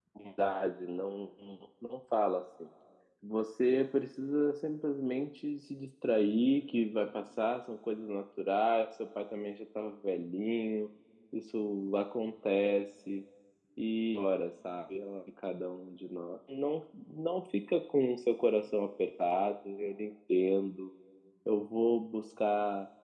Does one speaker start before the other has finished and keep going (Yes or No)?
No